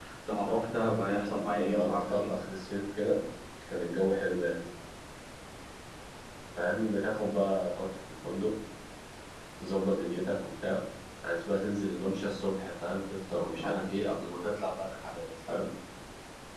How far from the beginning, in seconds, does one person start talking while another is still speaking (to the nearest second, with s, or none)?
1 s